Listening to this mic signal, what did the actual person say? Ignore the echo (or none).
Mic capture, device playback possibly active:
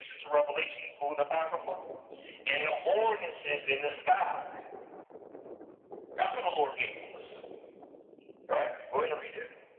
none